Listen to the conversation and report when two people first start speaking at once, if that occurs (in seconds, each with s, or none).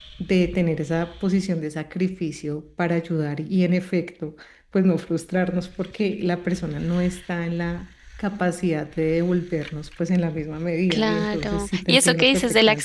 10.9 s